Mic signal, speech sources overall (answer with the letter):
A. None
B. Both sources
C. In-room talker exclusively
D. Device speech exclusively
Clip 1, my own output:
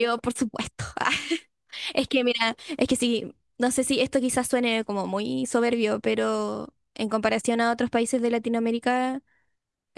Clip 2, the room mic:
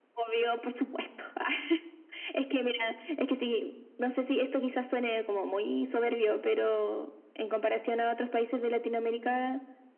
D